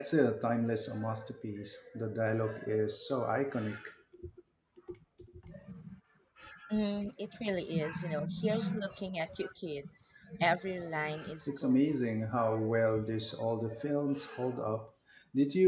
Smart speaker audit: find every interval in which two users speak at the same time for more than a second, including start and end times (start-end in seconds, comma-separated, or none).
none